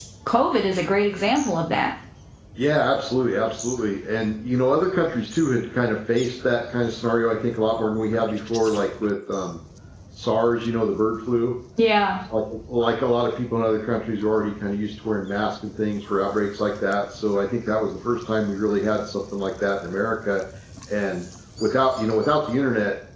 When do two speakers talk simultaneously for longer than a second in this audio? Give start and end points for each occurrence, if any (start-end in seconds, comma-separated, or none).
none